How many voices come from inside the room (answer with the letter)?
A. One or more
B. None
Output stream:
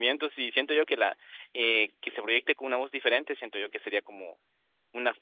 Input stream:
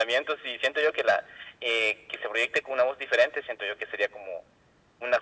B